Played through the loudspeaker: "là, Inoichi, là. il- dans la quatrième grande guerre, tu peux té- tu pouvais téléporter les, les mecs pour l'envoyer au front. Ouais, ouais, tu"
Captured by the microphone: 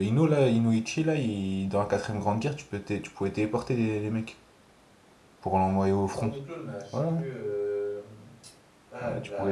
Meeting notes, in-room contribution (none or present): present